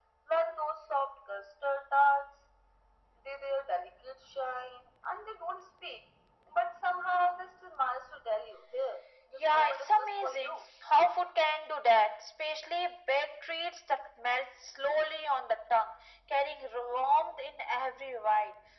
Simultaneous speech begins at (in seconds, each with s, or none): 9.4 s